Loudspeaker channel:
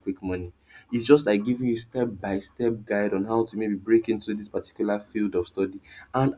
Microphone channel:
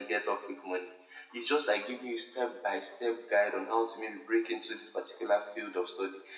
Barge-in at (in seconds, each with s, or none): none